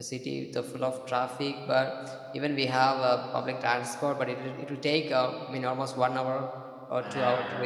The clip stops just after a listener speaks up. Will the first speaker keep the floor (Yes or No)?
Yes